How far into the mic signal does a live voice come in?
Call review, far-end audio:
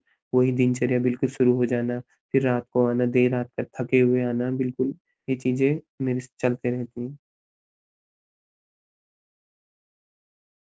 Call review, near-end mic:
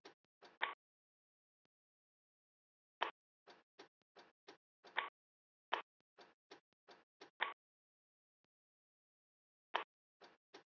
none

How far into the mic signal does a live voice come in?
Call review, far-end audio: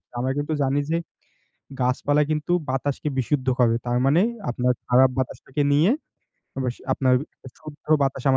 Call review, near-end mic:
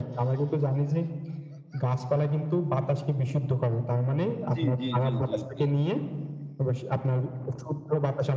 4.5 s

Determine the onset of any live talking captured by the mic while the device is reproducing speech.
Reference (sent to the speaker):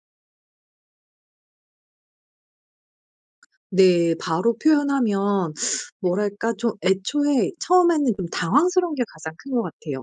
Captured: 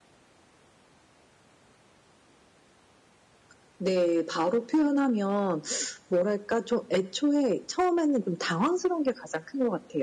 none

